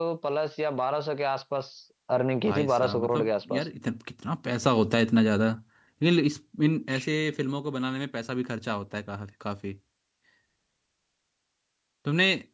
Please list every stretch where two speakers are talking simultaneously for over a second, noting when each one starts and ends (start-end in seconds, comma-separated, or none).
2.5-3.7